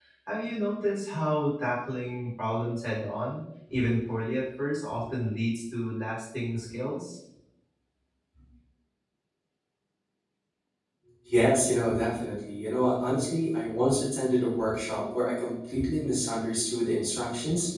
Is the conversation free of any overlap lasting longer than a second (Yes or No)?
Yes